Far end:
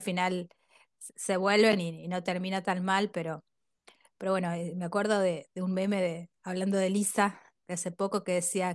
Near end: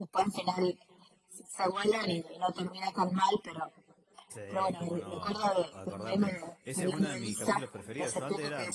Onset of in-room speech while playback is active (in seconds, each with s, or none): 4.3 s